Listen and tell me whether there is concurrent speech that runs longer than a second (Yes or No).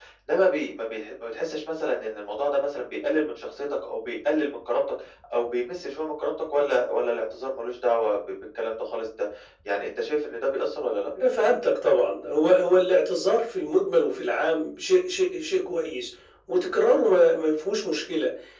No